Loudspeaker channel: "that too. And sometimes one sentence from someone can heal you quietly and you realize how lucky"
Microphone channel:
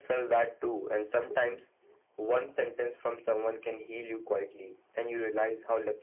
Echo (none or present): present